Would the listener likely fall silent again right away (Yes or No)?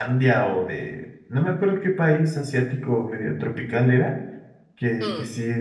Yes